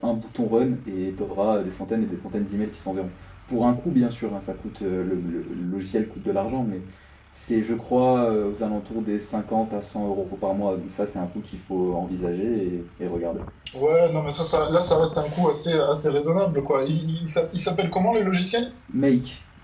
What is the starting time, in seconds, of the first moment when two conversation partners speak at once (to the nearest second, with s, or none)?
none